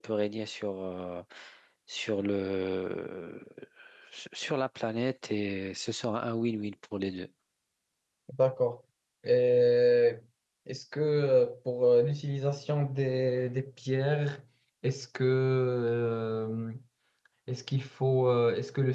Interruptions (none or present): none